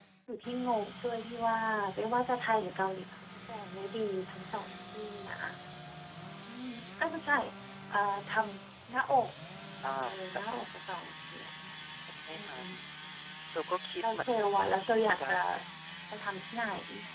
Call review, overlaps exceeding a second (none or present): none